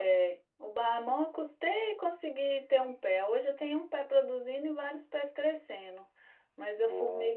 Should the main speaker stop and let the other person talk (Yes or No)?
No